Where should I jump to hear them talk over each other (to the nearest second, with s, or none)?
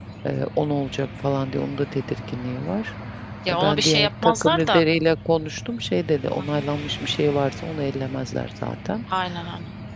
4 s